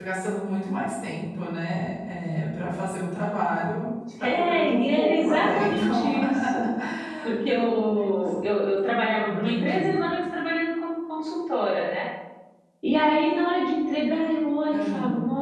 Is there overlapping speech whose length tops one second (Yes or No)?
Yes